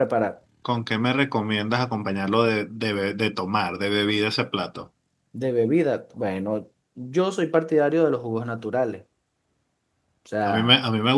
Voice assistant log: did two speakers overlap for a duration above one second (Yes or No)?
No